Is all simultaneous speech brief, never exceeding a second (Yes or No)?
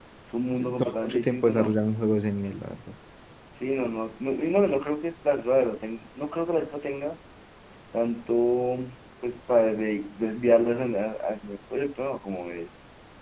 No